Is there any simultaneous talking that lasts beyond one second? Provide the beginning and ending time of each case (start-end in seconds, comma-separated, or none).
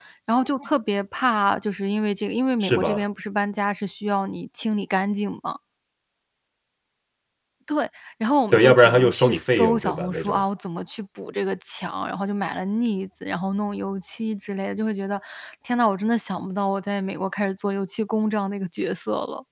8.5-10.4